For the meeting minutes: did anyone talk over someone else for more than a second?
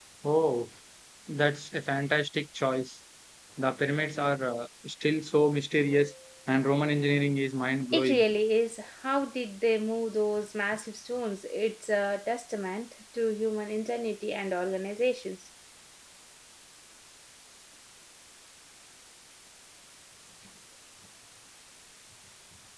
No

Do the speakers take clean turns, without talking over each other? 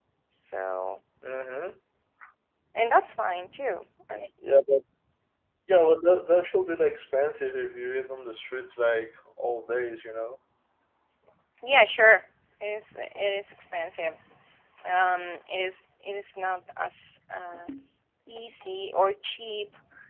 Yes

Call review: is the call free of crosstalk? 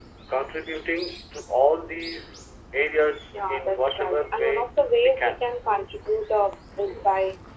No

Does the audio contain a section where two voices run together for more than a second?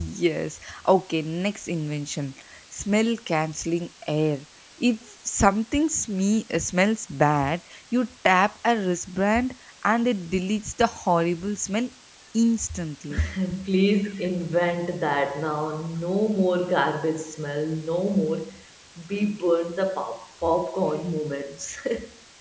No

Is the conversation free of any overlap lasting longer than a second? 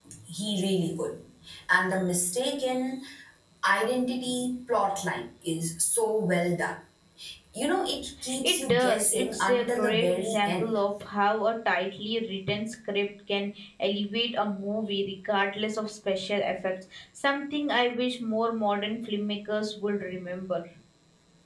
No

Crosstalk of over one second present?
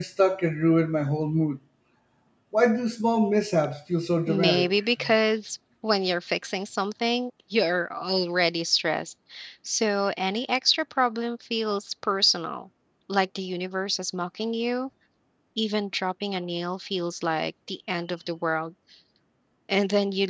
No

